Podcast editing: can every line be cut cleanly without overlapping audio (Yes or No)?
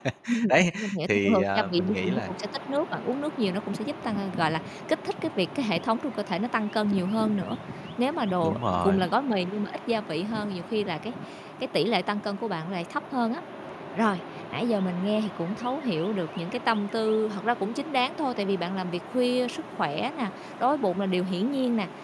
No